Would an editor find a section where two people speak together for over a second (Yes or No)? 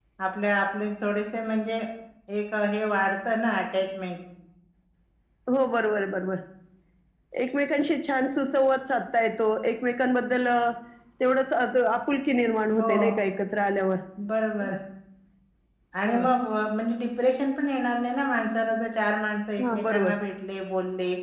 No